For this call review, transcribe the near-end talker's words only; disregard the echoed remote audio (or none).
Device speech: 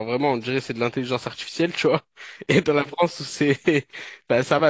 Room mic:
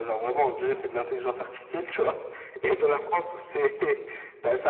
none